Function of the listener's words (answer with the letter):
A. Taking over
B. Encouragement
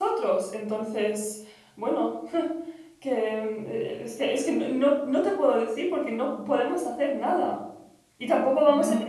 B